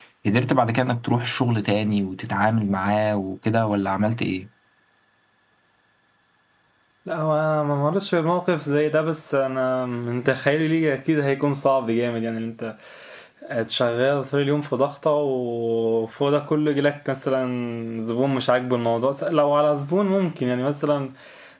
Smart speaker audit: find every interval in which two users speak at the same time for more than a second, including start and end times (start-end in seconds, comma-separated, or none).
none